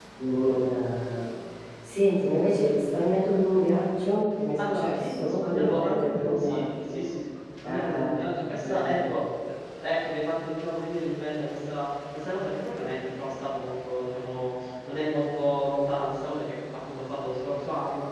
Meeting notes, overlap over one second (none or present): present